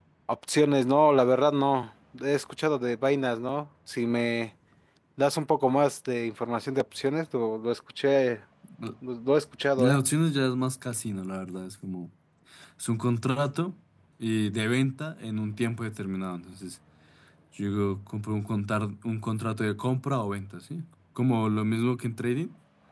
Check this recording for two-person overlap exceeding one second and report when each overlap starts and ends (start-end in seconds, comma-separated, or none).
none